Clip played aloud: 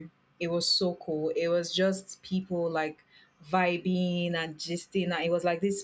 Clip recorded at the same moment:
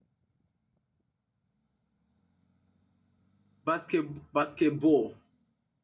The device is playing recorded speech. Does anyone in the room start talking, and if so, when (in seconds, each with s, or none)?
3.6 s